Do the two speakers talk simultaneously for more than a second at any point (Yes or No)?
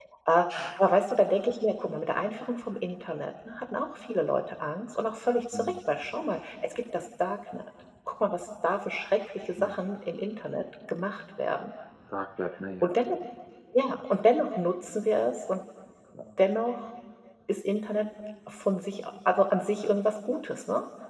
No